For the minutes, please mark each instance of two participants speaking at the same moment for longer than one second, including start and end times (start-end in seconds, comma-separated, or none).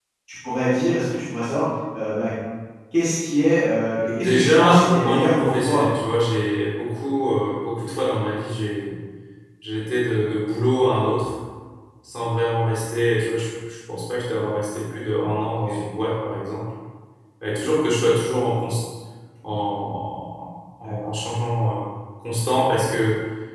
4.2-5.8